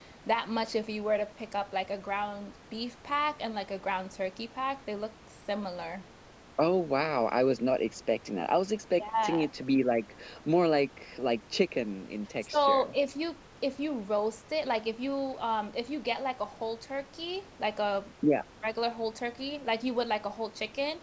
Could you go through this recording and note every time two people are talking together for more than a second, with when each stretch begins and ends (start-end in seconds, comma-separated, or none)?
none